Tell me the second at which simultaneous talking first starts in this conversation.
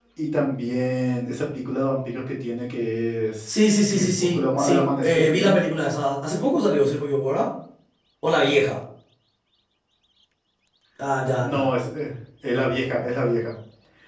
3 s

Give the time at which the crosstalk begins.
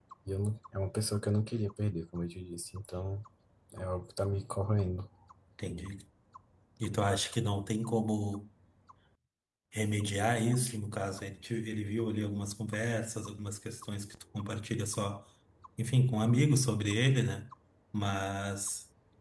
none

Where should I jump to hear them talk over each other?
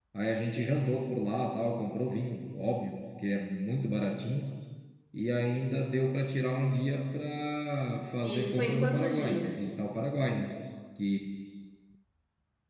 8 s

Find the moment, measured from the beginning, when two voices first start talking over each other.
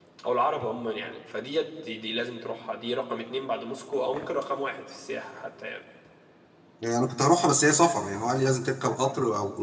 none

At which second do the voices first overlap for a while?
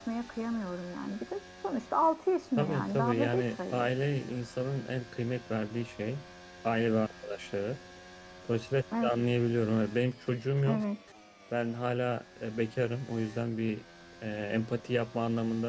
3 s

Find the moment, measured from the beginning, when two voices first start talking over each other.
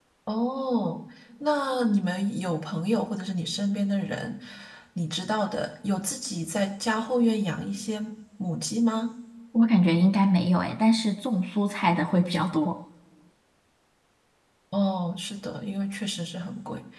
none

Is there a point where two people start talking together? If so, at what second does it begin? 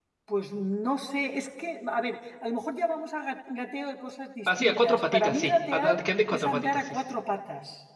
4 s

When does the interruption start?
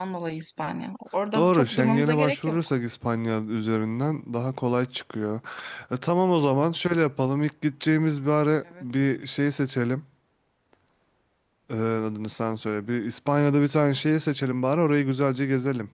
1 s

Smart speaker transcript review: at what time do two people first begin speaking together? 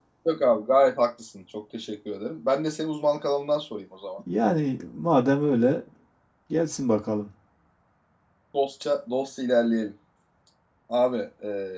none

